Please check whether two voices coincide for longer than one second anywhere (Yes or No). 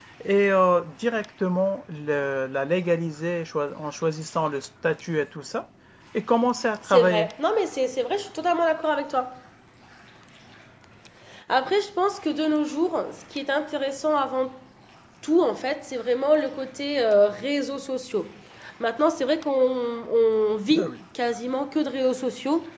No